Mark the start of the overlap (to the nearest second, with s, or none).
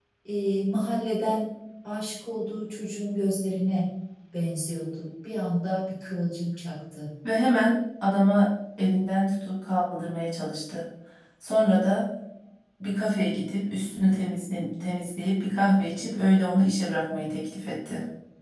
none